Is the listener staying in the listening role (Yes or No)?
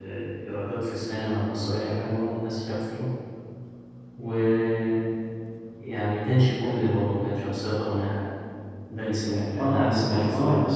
No